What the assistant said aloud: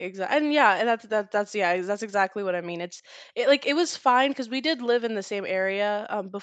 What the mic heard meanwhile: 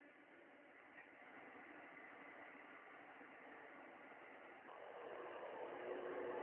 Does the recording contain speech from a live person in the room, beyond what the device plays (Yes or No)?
No